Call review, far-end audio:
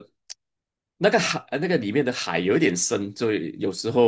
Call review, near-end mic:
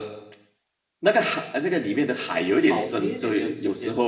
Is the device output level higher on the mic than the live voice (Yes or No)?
Yes